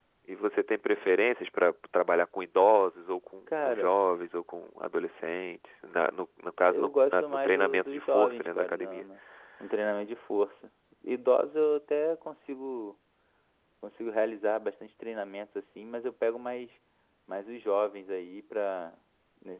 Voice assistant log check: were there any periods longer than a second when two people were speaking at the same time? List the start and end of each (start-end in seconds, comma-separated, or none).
6.6-9.1